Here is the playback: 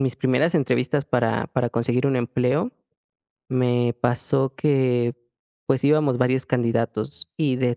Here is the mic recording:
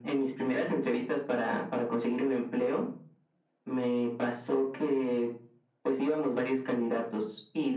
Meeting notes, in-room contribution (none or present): none